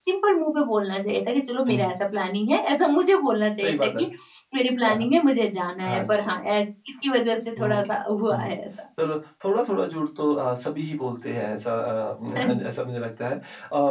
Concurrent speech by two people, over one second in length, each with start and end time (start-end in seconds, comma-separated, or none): none